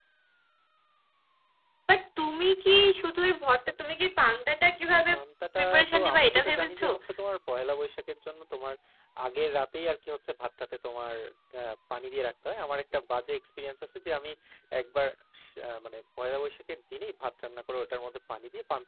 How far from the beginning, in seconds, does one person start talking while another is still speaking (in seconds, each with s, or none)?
5.6 s